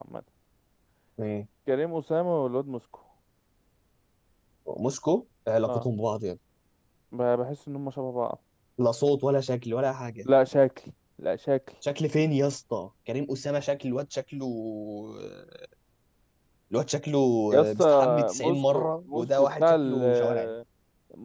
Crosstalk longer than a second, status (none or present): present